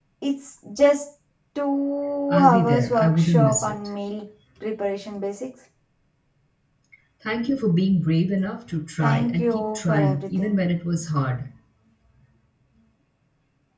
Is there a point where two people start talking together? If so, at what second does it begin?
2.3 s

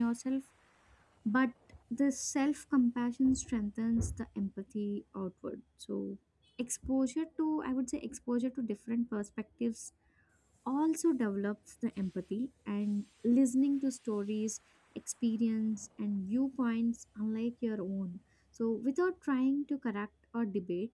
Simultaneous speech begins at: none

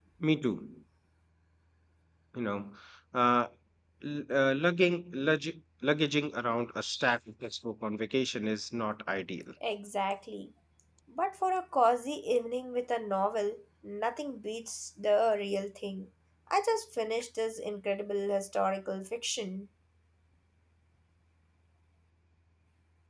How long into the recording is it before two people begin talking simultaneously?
none

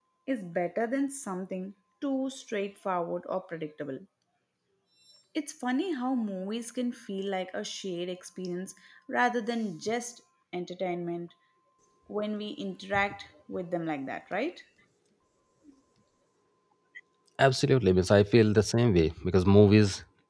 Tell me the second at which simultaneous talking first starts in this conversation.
none

